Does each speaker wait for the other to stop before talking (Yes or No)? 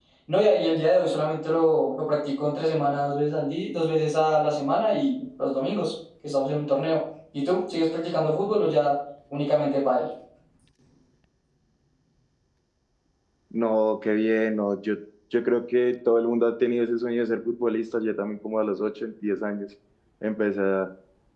Yes